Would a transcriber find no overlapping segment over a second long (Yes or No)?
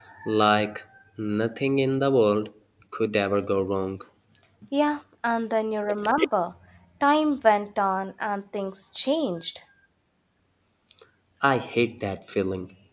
Yes